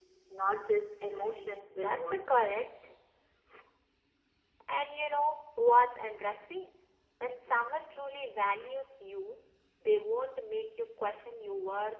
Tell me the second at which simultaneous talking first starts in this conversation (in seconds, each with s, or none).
1.0 s